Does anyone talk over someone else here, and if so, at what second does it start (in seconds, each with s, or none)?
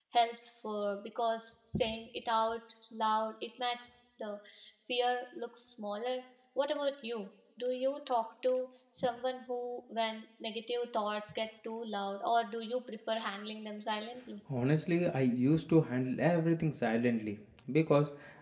none